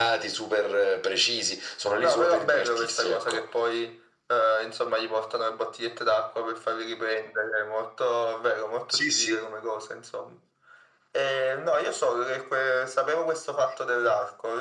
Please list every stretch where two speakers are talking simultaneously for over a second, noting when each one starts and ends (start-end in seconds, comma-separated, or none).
2.0-3.4